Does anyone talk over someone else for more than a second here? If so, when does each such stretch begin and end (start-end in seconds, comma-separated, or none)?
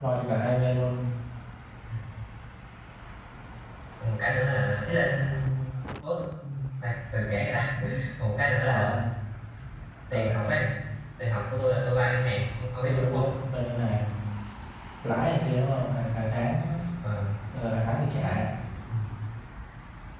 none